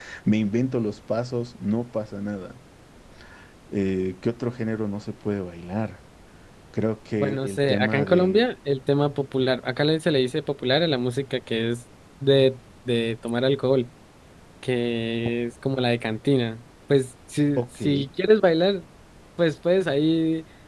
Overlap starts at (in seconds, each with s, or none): 7.2 s